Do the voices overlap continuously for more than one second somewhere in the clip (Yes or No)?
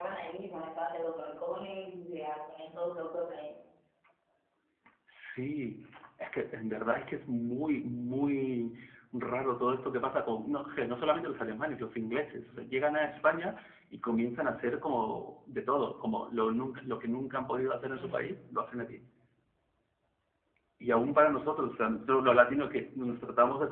No